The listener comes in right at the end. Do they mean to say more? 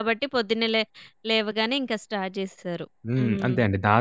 Yes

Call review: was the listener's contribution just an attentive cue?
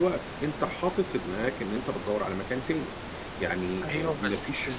No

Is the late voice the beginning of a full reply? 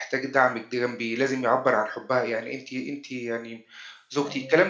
No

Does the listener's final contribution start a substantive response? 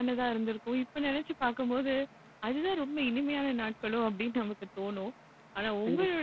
No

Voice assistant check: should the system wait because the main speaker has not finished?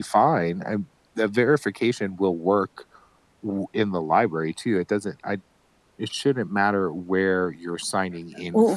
No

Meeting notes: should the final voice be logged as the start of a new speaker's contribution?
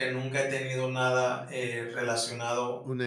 Yes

